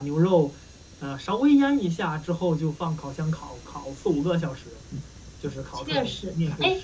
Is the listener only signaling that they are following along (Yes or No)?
No